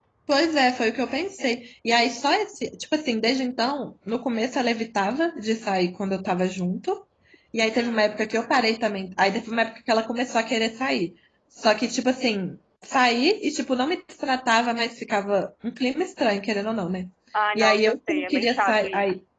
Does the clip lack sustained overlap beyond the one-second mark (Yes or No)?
No